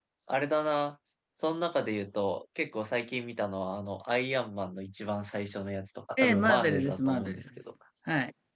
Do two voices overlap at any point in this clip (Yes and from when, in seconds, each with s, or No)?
Yes, from 6.2 s